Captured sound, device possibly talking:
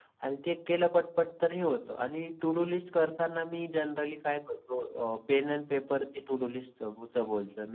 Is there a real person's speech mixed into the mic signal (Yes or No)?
No